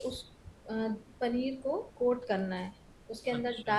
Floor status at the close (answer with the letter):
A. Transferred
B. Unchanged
B